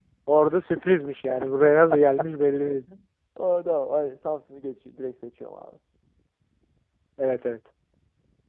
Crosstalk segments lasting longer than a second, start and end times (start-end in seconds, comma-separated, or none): none